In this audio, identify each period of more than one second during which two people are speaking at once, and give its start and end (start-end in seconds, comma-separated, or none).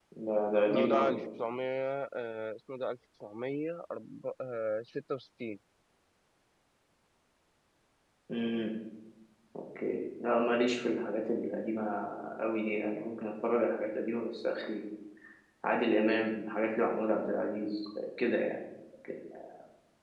none